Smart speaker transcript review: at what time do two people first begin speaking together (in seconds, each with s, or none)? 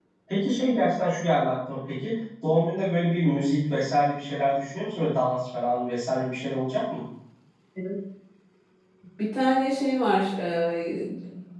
none